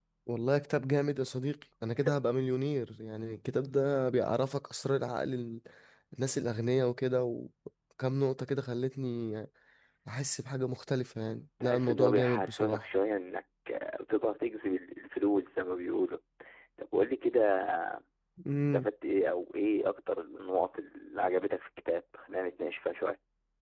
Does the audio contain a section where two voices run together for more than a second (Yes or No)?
Yes